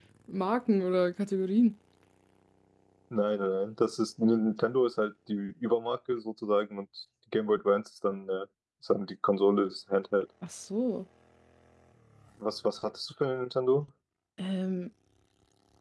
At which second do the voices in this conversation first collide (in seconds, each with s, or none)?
none